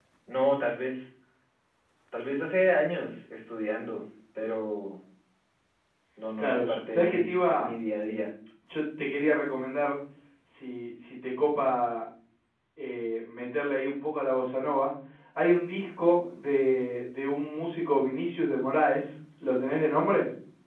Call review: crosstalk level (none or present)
present